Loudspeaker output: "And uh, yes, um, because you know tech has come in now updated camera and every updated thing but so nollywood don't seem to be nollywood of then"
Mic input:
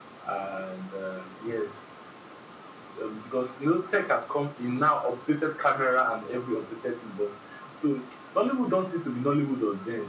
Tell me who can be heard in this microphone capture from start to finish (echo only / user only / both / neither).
echo only